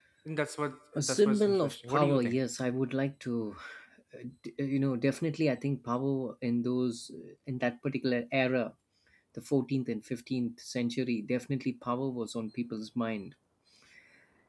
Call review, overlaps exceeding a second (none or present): present